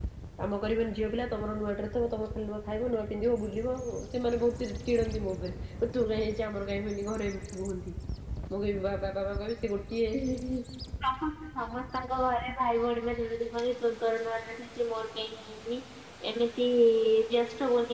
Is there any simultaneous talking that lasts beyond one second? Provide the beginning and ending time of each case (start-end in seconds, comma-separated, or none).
none